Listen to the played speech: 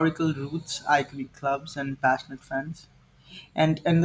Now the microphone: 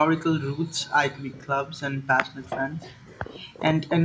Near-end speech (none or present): none